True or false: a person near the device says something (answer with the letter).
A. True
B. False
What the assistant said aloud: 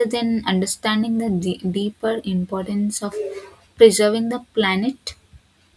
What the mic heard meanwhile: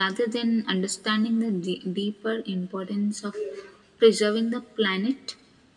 B